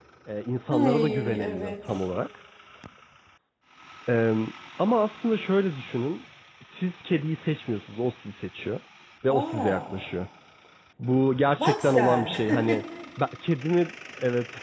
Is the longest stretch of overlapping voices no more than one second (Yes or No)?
No